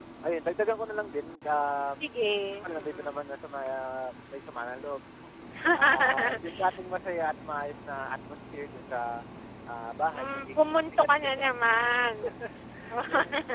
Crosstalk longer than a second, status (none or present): present